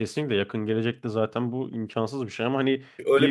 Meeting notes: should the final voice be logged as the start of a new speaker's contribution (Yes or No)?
Yes